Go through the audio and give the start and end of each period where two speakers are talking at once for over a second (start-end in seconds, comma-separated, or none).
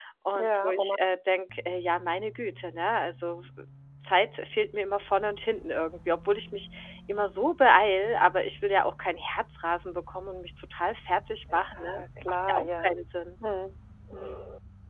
11.5-13.0